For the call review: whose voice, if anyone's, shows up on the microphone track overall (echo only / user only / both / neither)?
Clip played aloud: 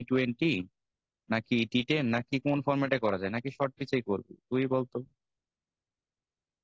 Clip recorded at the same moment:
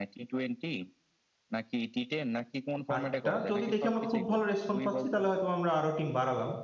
both